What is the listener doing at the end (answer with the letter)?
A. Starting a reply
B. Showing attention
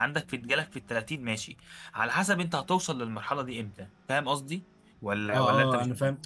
A